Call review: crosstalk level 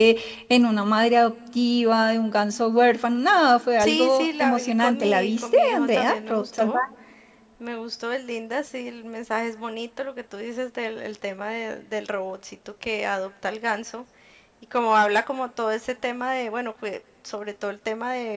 present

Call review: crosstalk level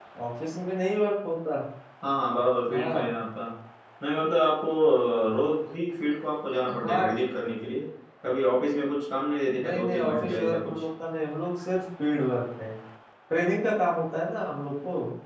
present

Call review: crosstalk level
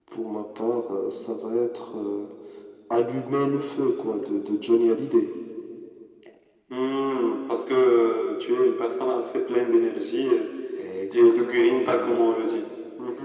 present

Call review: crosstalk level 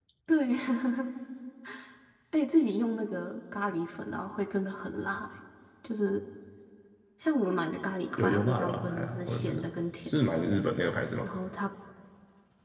present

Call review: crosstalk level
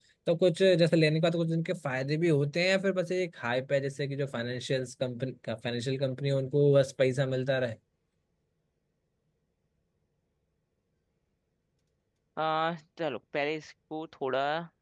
none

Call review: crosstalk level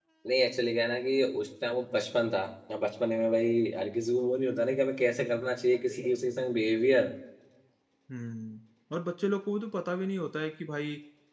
none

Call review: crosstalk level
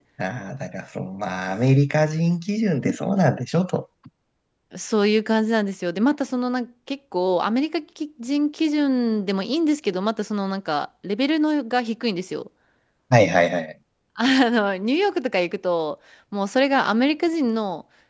none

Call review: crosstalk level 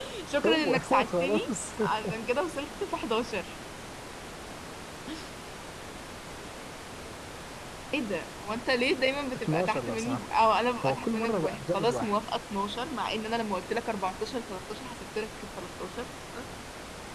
present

